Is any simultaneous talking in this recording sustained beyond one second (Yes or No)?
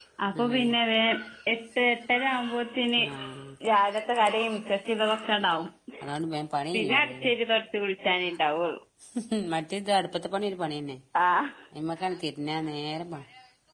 No